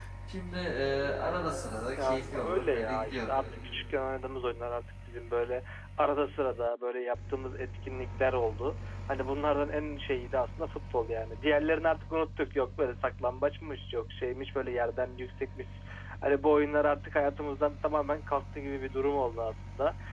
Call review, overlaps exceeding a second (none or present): present